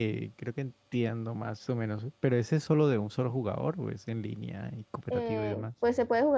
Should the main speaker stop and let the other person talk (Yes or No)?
Yes